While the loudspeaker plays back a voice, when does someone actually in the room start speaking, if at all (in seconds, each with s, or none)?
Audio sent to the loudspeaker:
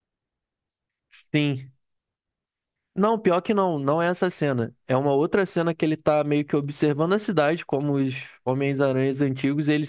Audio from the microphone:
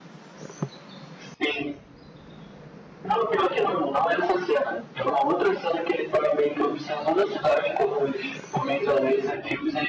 none